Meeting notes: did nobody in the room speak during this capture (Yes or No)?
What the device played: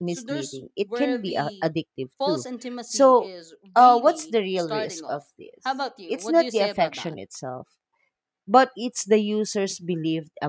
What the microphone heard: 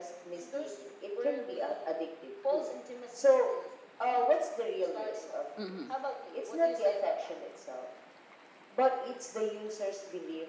No